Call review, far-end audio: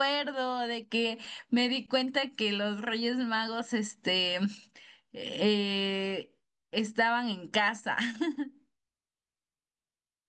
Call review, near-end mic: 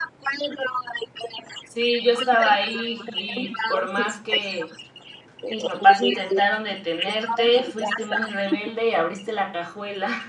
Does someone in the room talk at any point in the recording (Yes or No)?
Yes